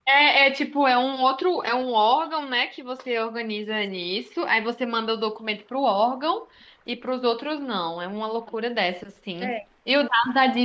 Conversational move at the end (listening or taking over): listening